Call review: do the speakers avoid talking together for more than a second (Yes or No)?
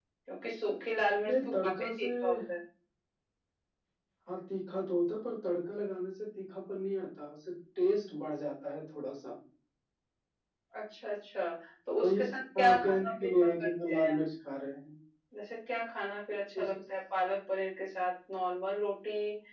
No